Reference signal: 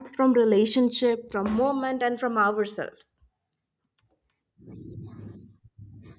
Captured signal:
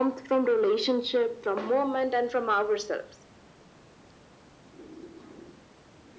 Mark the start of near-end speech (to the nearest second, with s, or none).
none